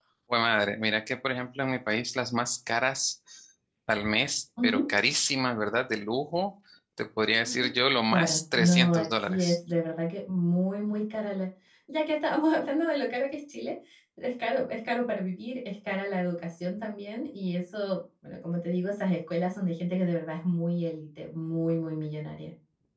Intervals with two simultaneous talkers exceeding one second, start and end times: 8.1-9.5

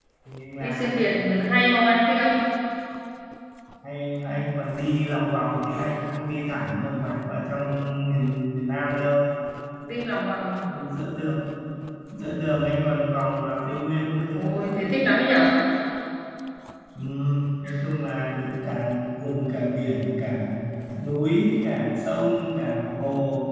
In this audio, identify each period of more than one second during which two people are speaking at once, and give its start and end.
none

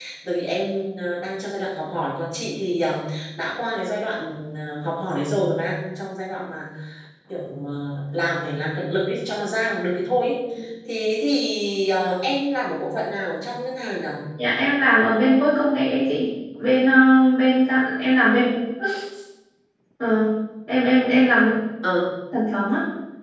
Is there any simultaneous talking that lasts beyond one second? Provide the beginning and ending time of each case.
none

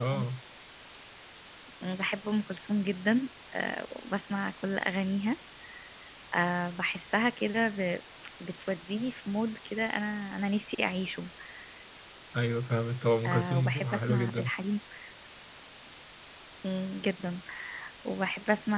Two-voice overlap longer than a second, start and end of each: 13.3-14.5

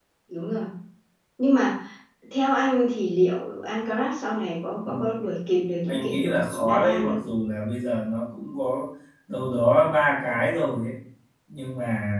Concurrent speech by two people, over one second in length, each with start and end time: 5.9-7.2

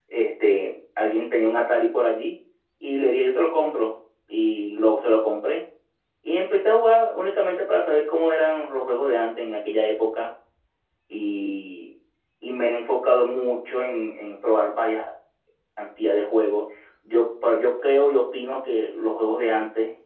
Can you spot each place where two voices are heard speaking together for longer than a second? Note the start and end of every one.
none

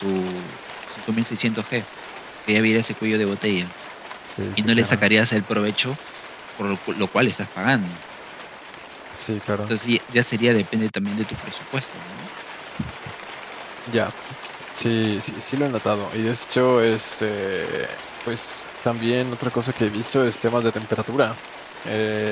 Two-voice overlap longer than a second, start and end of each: none

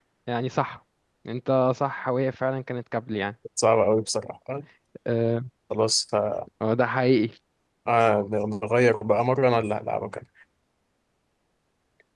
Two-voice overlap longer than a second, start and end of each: none

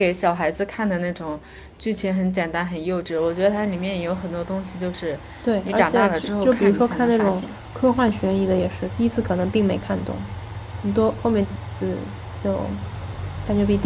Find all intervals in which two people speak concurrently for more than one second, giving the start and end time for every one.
5.7-7.5

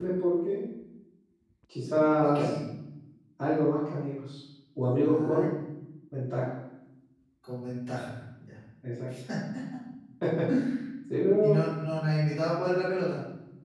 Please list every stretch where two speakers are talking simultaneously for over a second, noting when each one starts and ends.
none

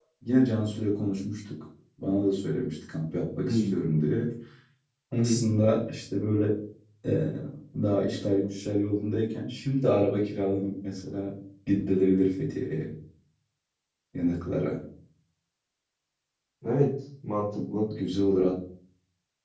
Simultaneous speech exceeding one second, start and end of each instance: none

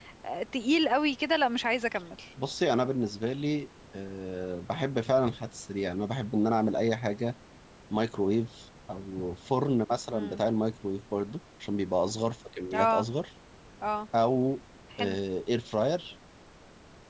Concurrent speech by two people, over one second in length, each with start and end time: none

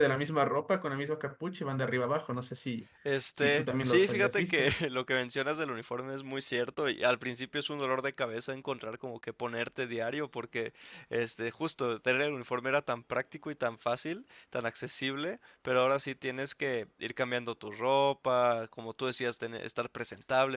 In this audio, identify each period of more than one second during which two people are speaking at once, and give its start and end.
3.4-4.7

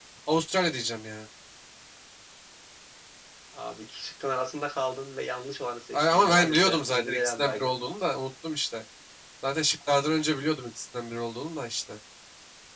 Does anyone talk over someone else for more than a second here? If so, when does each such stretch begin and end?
5.9-7.7

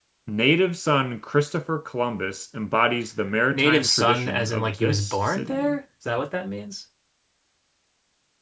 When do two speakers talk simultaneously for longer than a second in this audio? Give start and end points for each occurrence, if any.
3.5-5.8

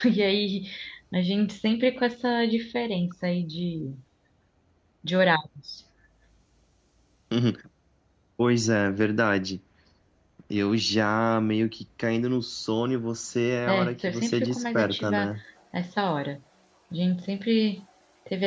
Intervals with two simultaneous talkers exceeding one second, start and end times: 13.7-15.3

